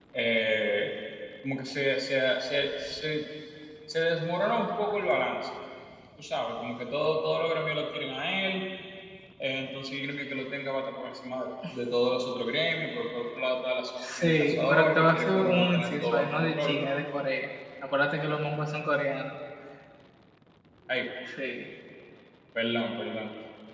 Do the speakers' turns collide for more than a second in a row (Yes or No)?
Yes